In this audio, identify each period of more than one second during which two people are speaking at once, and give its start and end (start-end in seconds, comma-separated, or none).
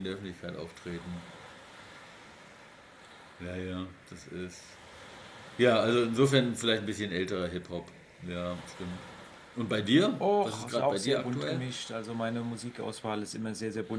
10.2-11.6